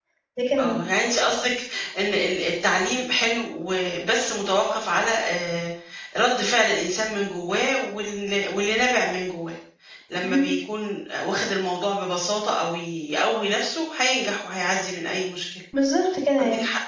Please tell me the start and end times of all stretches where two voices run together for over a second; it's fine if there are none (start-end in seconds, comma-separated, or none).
none